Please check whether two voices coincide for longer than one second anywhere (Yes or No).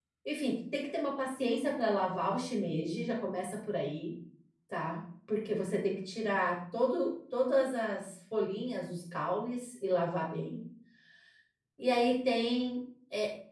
No